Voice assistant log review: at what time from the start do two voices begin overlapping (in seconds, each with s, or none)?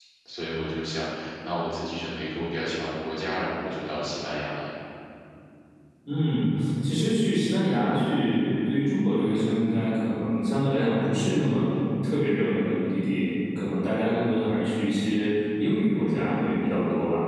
none